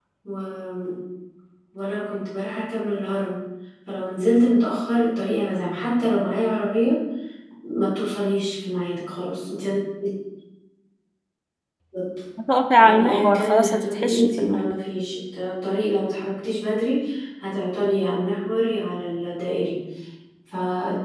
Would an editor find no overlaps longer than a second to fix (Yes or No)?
No